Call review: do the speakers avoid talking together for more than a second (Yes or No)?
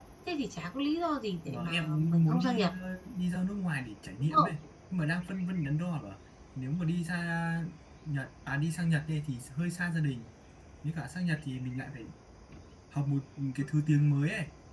No